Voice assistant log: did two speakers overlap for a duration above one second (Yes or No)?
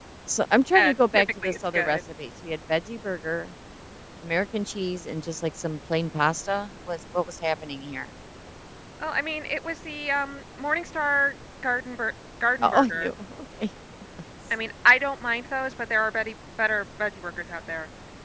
Yes